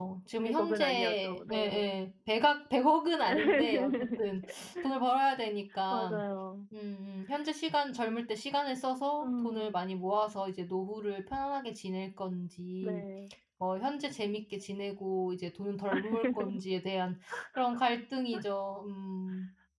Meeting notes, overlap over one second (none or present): present